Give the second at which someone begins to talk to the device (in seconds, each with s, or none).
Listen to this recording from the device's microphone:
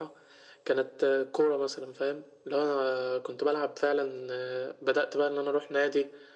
none